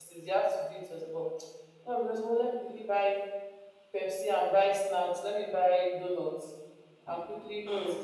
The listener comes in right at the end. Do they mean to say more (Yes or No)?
No